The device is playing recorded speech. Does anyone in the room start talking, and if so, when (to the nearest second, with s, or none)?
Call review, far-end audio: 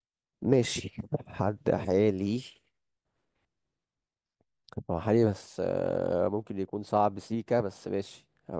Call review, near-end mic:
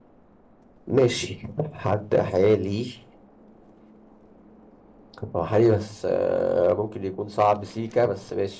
none